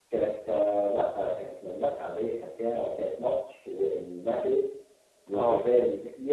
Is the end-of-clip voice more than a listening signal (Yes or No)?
No